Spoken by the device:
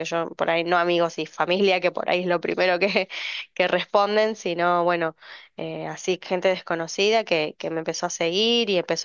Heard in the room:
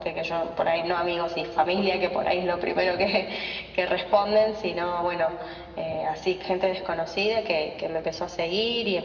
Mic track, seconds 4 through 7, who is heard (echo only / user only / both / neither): echo only